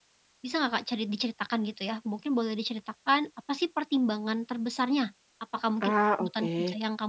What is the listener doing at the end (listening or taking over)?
listening